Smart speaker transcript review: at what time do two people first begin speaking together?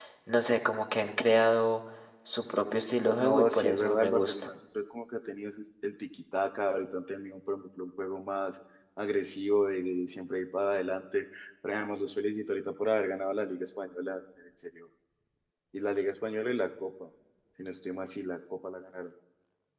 3.2 s

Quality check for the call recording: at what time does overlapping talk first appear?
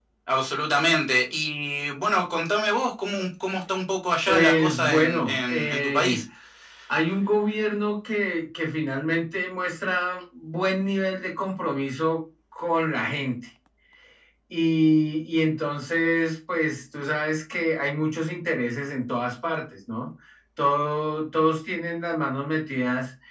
4.3 s

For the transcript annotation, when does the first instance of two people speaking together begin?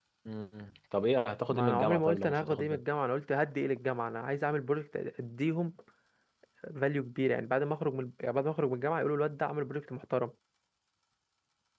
1.5 s

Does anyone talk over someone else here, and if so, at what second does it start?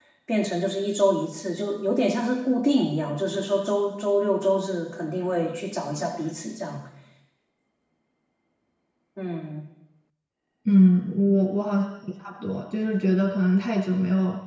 none

